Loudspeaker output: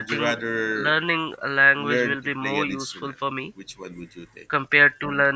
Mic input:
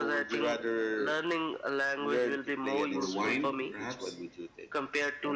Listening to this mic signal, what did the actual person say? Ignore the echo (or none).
or wine, perhaps?